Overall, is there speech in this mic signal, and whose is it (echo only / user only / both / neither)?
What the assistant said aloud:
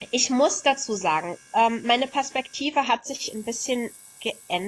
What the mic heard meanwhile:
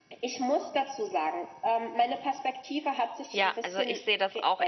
both